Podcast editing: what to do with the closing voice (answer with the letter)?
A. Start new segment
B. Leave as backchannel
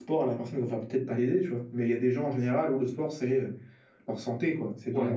A